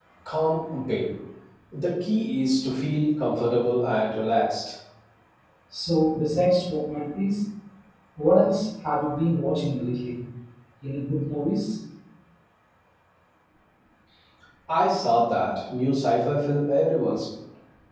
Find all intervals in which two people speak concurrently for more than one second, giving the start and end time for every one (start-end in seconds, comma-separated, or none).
none